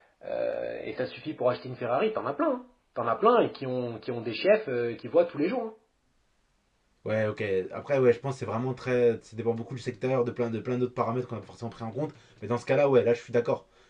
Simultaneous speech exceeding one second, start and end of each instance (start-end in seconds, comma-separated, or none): none